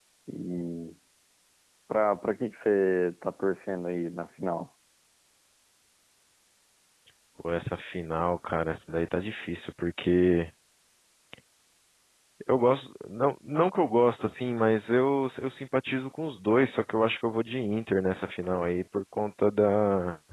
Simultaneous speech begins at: none

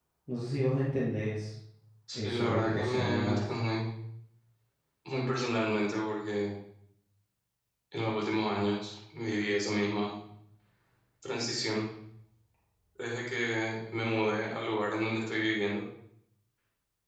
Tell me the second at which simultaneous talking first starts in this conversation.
2.1 s

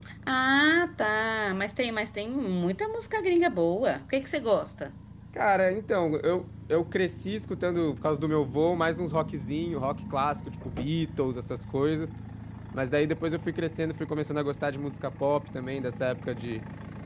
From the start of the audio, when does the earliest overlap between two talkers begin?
none

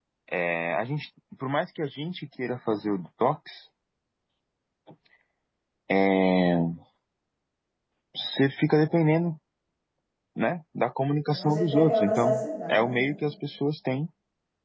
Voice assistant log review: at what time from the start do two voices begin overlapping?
11.3 s

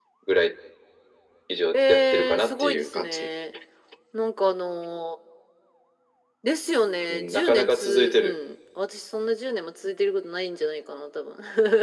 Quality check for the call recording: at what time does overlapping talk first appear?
1.7 s

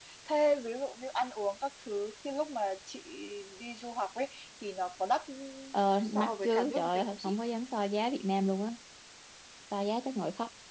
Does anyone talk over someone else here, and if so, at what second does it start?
6.2 s

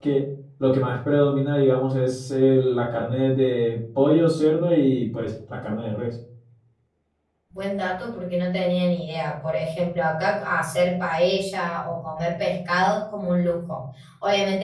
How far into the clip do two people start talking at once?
none

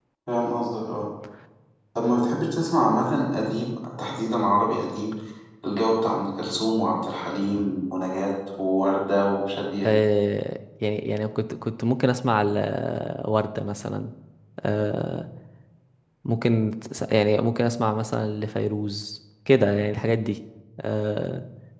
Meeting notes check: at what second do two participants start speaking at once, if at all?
none

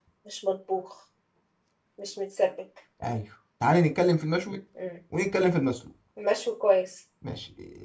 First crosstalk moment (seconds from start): none

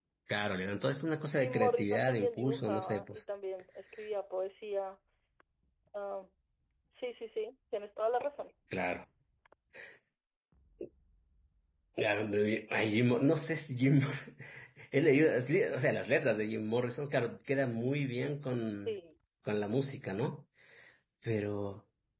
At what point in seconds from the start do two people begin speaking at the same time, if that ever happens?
1.3 s

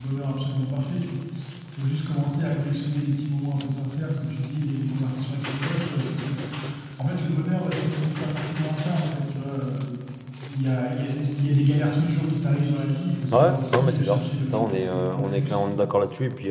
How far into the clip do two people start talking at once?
13.3 s

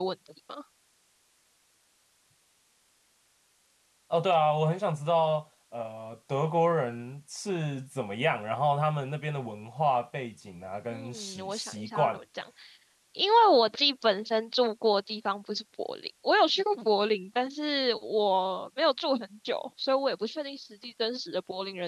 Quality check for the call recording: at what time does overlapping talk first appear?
10.9 s

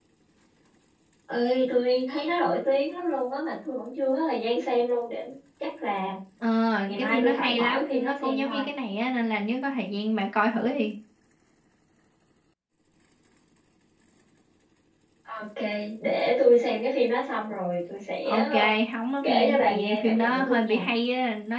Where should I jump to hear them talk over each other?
6.9 s

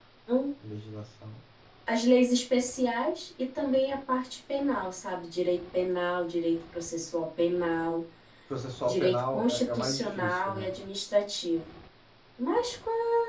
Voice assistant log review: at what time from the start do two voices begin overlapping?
8.9 s

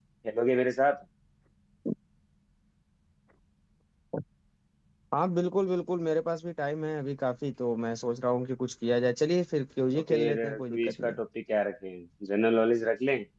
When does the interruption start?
9.9 s

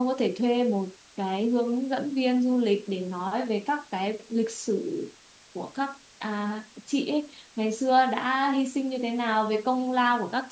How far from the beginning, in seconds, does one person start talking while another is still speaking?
none

